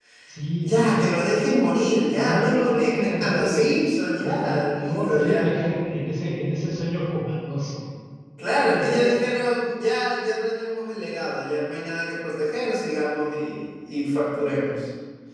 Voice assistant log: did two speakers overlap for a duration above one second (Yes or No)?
Yes